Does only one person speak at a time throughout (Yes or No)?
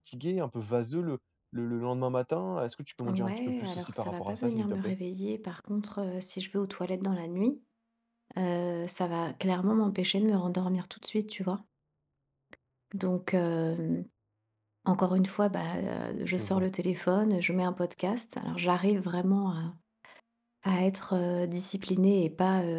No